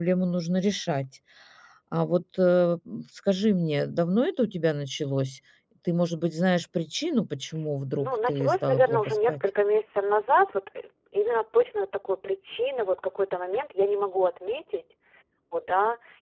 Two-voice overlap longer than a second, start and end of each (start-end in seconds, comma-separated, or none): 8.0-9.4